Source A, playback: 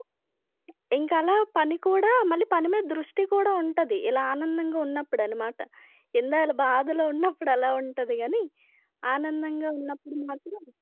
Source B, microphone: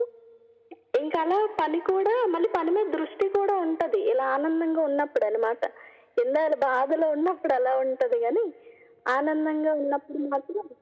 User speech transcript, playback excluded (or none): none